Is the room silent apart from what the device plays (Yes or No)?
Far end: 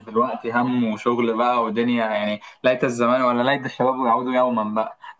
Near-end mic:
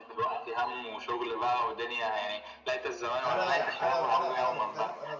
No